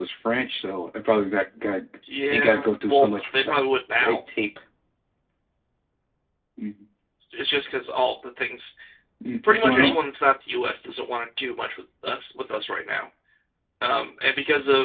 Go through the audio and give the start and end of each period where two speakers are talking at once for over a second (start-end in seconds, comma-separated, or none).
2.3-3.6